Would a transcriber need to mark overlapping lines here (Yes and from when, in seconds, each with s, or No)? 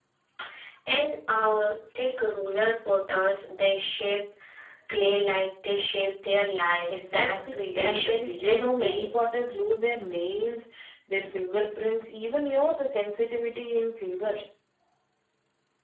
Yes, from 6.9 s